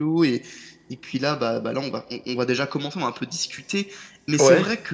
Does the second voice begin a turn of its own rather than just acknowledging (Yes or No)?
No